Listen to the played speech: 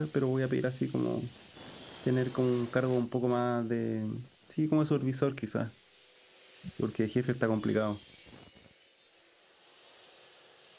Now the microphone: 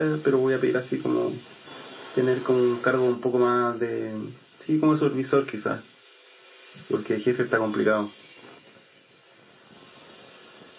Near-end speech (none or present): none